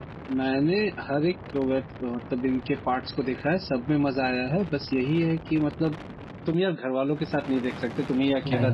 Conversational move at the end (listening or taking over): listening